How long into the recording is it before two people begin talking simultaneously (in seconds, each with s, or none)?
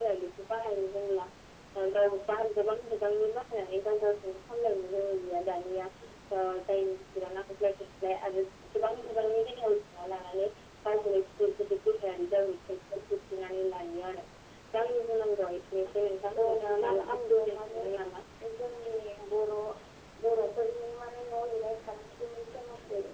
16.4 s